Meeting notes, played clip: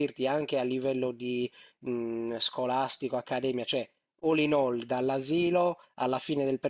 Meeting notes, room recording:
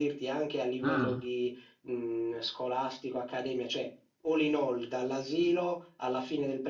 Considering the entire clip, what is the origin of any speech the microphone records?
both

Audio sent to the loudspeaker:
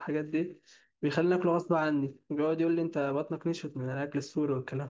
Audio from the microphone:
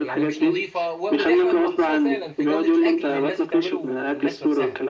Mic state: both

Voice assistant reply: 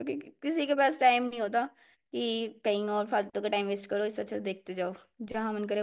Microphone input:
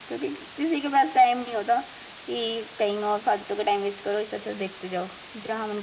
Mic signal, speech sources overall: echo only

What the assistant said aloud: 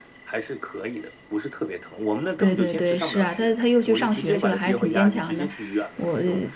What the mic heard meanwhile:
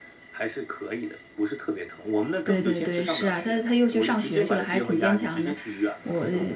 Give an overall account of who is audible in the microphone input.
echo only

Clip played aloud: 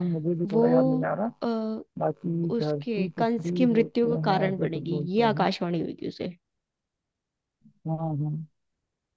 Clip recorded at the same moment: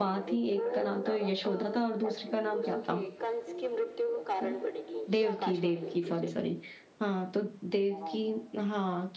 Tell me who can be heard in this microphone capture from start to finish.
both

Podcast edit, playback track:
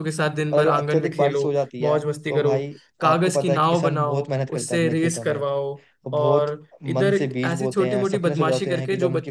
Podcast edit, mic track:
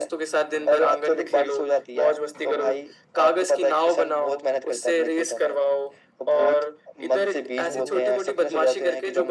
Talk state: both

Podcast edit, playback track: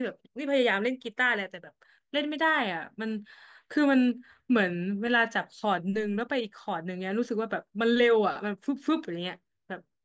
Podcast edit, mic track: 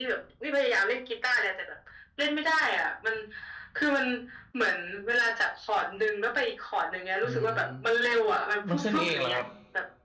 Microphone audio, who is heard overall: both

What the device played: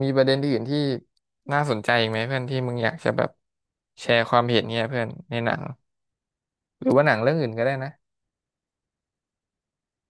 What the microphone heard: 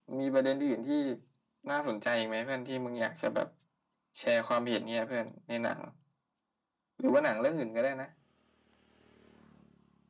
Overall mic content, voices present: echo only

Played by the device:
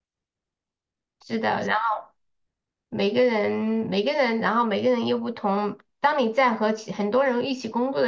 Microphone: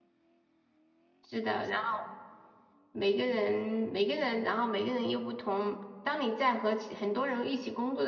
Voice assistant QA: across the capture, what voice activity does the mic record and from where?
echo only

